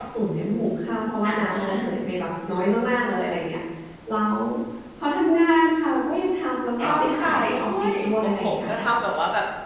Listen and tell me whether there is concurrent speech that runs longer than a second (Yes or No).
Yes